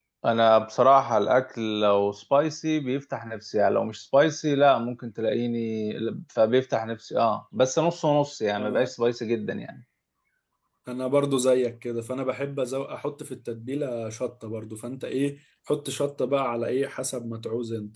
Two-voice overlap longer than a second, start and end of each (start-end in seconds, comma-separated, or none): none